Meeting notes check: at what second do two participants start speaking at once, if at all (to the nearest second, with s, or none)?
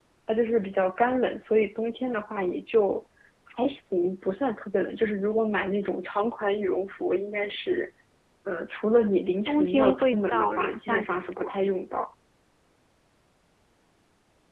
9 s